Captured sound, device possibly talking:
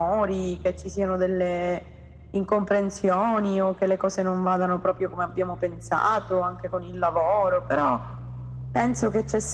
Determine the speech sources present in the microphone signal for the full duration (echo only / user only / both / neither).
echo only